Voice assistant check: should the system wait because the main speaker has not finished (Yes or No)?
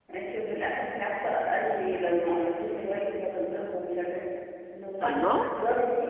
Yes